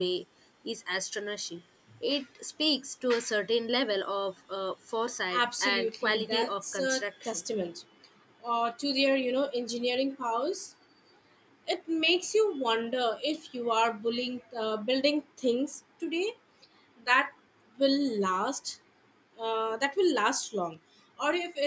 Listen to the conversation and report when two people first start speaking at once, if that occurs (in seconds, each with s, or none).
5.3 s